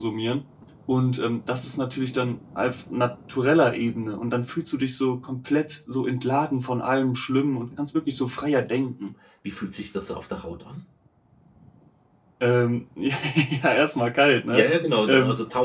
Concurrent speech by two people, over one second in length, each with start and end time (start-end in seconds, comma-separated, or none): none